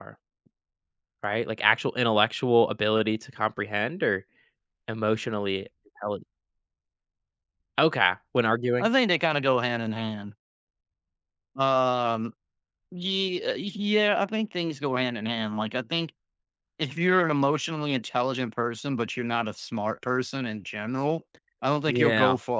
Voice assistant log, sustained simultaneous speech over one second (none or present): none